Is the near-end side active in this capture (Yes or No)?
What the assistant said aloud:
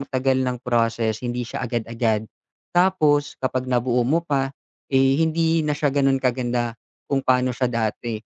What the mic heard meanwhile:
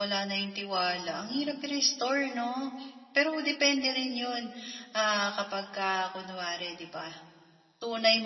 Yes